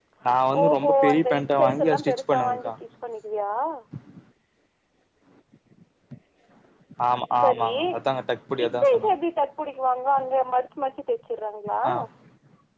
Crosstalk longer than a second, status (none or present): present